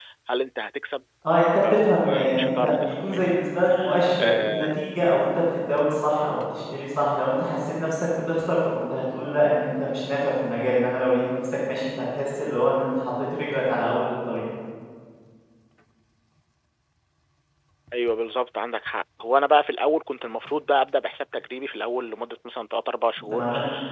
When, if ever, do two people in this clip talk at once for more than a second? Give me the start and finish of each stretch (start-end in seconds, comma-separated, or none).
1.7-3.4